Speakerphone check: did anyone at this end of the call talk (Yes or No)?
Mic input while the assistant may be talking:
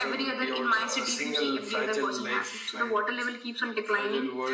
No